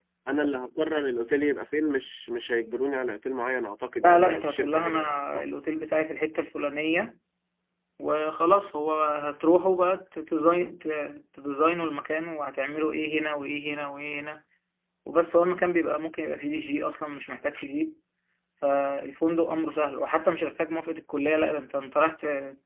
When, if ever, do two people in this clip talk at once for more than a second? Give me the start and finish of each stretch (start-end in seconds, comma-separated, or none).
4.0-5.4